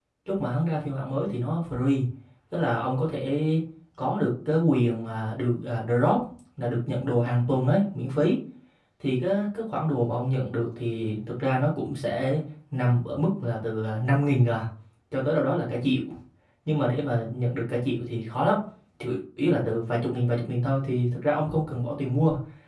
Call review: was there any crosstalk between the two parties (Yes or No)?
No